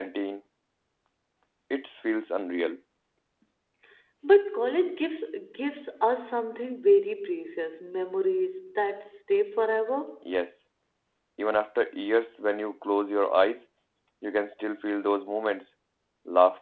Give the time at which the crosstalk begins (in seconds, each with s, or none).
none